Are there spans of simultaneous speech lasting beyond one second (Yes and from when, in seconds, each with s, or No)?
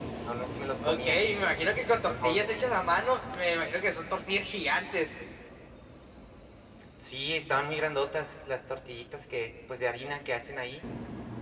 No